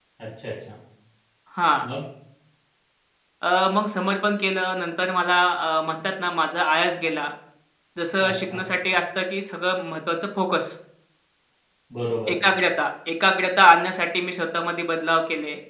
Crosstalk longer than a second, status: none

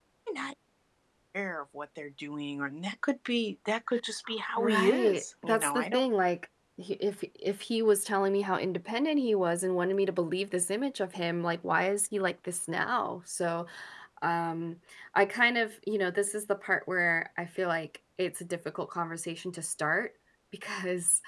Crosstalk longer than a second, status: present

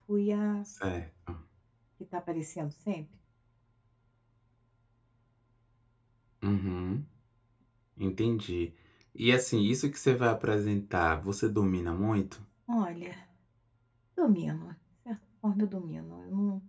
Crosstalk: none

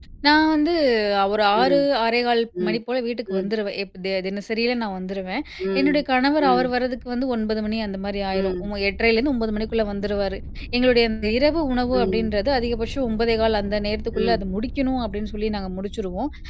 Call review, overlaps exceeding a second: none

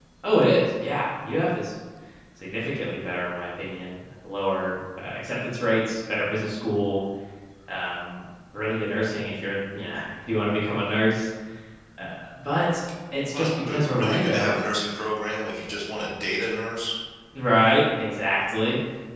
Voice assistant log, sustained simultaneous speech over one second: present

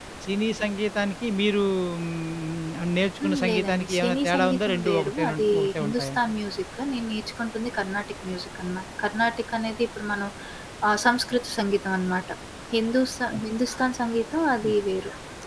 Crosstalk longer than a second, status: present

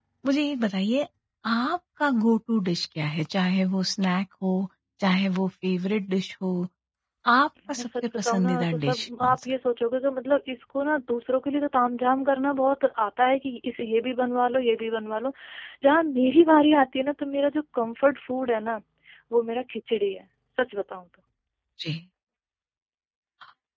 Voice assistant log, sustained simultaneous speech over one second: present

